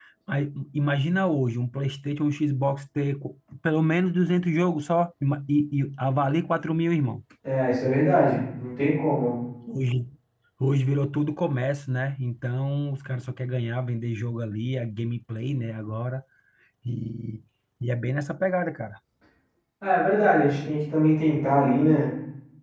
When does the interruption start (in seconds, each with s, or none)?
none